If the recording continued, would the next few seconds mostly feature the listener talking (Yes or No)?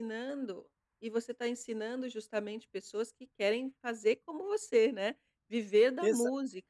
Yes